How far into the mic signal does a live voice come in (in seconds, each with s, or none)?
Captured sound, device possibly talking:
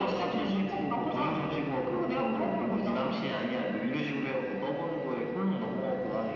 none